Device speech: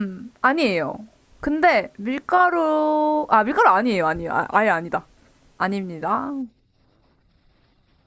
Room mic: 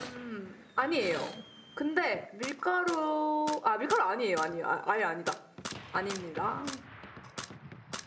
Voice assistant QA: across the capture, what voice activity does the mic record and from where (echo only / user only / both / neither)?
echo only